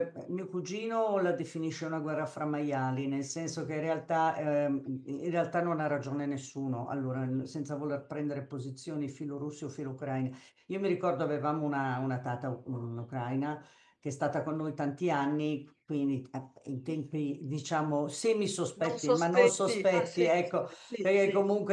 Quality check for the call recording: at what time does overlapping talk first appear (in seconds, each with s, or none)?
18.8 s